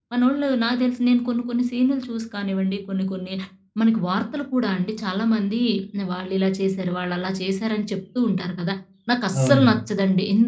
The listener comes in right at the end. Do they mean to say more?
No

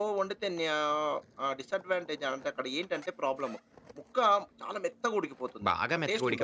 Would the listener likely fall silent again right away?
No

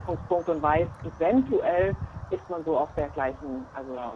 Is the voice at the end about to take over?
Yes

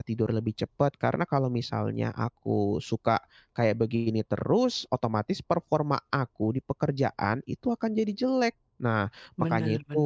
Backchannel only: Yes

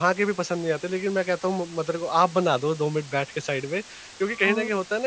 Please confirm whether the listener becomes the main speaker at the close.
No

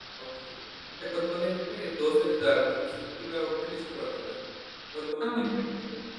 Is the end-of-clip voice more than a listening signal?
No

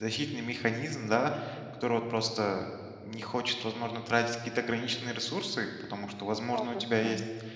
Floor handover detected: No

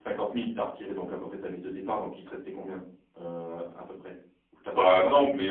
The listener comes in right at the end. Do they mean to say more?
Yes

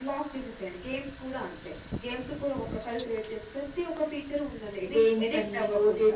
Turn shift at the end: Yes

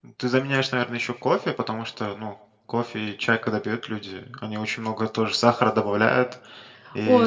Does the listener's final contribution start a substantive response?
Yes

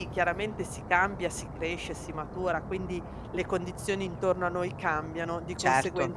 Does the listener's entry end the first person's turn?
No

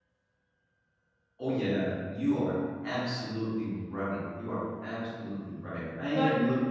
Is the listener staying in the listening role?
Yes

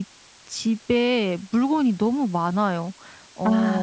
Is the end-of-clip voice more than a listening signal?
No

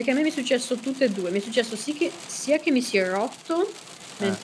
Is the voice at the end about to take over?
No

